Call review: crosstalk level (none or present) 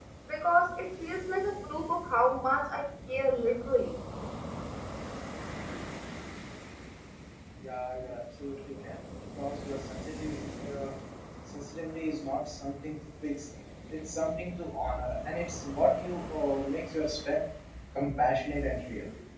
none